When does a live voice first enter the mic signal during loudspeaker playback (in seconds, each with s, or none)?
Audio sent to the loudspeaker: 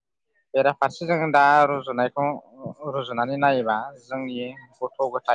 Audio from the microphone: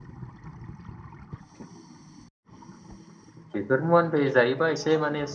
3.5 s